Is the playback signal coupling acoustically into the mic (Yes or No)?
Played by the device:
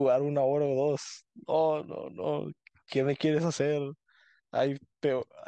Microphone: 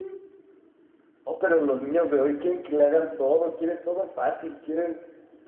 No